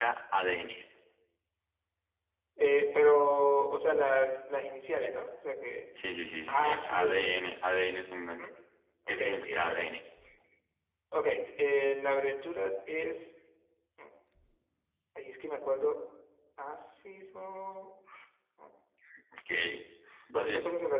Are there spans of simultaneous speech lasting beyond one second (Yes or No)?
Yes